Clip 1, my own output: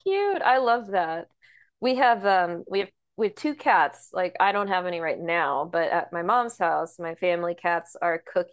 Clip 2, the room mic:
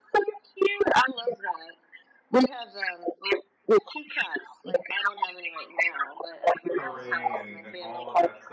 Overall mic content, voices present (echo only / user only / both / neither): both